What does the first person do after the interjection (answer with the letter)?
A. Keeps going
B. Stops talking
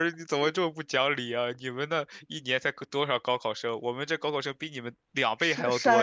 B